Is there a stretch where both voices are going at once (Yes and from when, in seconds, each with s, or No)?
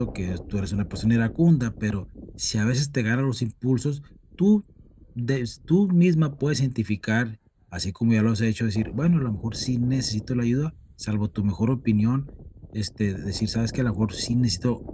No